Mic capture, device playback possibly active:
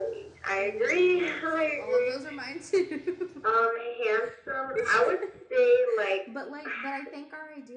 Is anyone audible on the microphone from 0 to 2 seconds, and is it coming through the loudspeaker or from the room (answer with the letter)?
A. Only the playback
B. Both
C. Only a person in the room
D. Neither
B